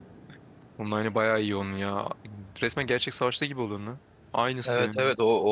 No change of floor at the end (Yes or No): No